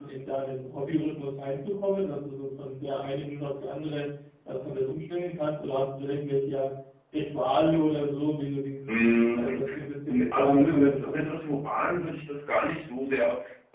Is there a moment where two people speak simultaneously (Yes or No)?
Yes